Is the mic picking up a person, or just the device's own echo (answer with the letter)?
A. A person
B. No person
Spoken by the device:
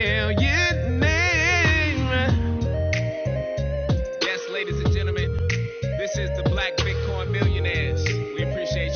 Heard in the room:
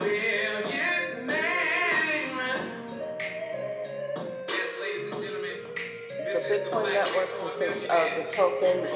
A